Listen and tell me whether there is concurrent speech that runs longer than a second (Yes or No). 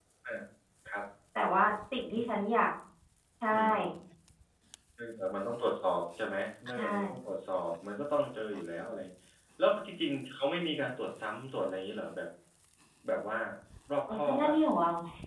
No